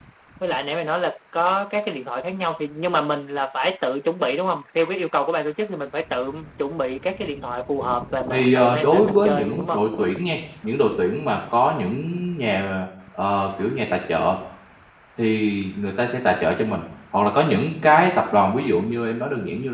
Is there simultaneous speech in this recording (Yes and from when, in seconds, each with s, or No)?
Yes, from 8.3 s